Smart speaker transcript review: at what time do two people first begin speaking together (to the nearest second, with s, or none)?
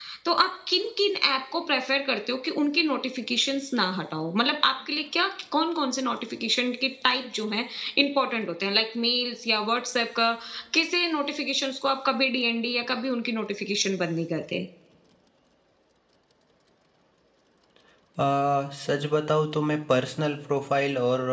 none